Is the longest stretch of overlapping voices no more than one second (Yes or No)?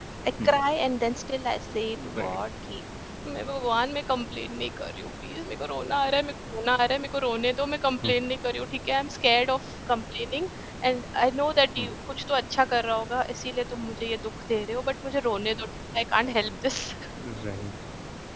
Yes